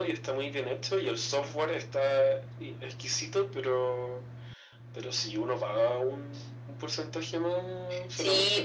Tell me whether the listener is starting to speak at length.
Yes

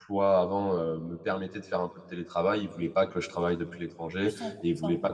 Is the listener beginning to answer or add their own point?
No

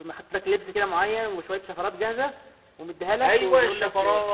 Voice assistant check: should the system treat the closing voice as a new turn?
Yes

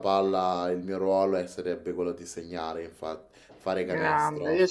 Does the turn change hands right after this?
Yes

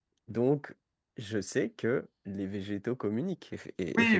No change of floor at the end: No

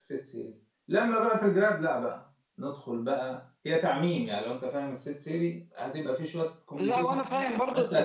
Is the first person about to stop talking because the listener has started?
Yes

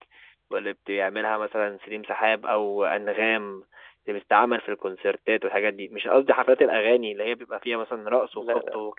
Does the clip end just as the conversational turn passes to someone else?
No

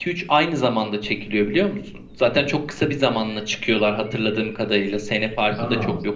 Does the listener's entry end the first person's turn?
No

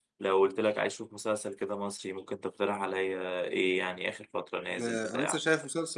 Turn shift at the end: Yes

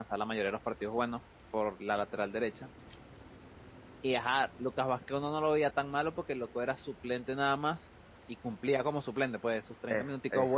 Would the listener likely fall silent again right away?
Yes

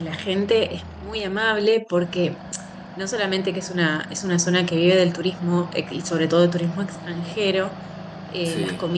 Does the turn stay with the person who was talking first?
Yes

